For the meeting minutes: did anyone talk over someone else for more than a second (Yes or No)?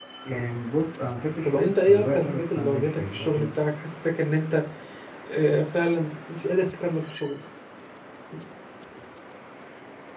Yes